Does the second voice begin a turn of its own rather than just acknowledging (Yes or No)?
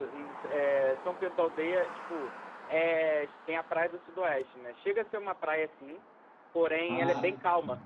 No